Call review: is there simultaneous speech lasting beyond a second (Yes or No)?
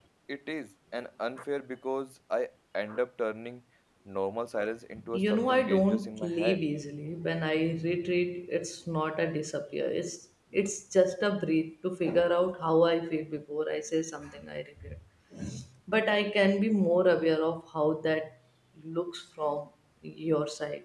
Yes